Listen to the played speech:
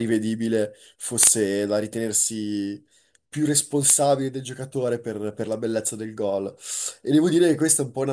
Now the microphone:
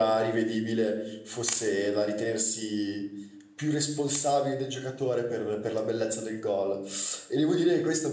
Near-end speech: none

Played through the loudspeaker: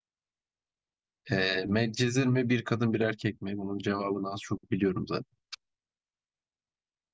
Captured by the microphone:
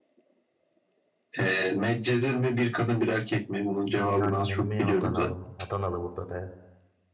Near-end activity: present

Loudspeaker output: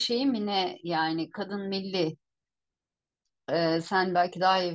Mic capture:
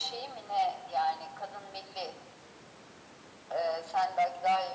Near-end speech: none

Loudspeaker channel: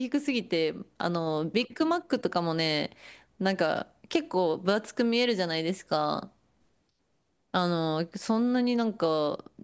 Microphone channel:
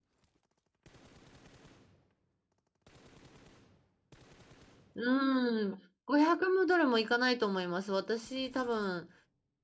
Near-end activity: present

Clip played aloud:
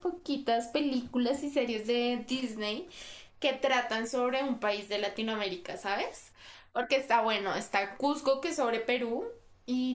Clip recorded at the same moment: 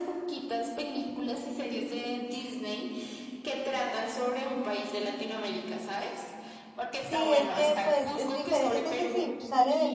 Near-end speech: present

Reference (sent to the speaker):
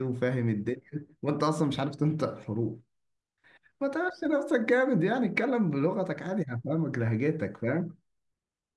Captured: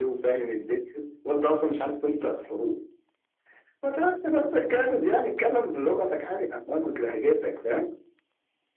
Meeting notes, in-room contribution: none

